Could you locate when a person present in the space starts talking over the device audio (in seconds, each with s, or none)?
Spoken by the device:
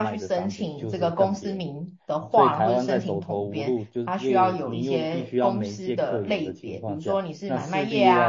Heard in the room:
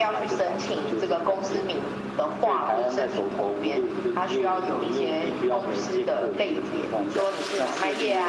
none